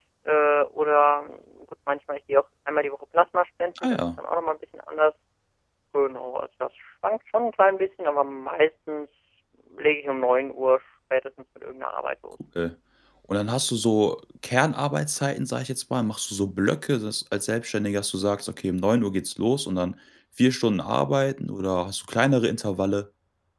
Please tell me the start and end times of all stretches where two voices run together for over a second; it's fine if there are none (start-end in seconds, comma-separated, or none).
none